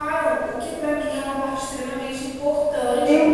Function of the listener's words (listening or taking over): taking over